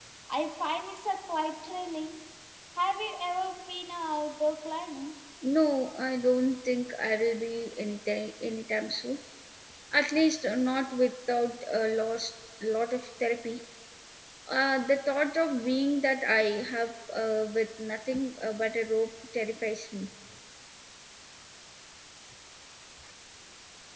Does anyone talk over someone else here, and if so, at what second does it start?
none

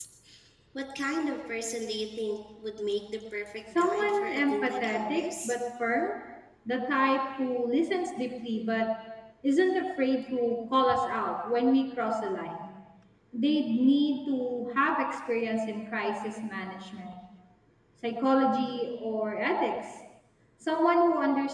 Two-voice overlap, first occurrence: 3.8 s

